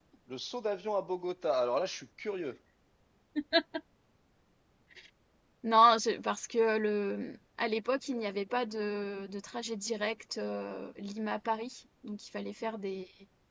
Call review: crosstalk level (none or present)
none